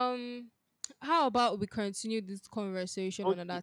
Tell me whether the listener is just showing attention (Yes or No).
No